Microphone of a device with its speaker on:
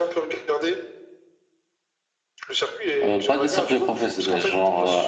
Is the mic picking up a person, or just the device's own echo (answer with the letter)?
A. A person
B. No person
A